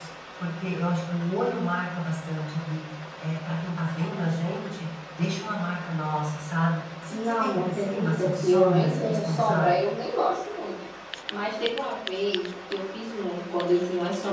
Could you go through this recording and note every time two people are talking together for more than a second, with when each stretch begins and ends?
7.1-9.8

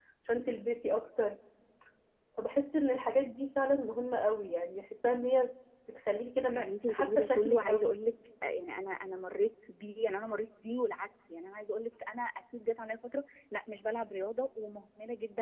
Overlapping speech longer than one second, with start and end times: 6.5-8.0

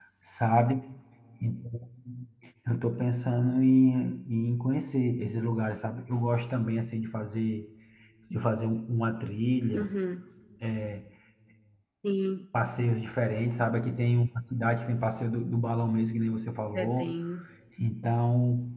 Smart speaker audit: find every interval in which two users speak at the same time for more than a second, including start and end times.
none

